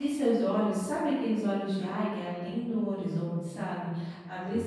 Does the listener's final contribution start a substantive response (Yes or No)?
No